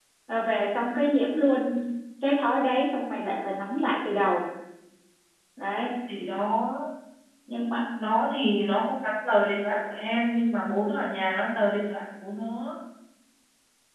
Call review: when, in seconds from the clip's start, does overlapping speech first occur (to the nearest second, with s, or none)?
none